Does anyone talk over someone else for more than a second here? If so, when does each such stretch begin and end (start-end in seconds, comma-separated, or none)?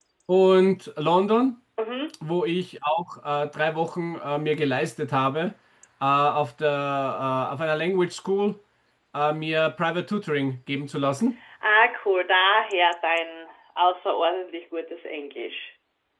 none